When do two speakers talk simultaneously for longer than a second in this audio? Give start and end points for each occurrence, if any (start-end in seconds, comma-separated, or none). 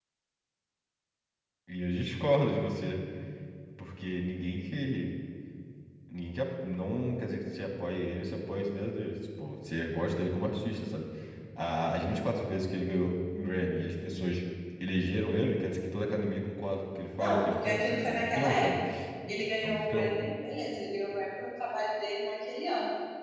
17.2-18.8